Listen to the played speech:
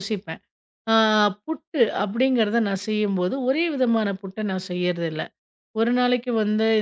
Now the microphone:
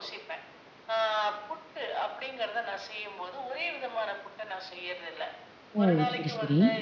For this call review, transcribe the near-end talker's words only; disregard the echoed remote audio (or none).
ஓ! சரி, சரி.